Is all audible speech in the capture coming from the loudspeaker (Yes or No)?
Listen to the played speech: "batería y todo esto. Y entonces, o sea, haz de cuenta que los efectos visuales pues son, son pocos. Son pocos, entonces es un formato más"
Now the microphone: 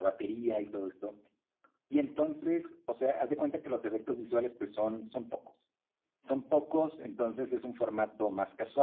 Yes